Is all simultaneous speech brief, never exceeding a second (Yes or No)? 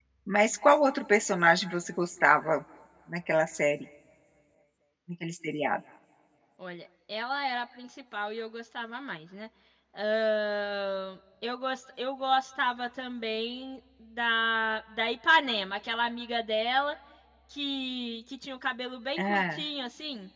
Yes